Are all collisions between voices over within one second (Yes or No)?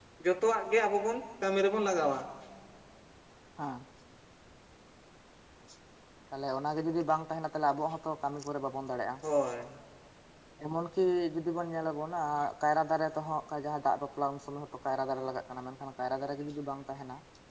Yes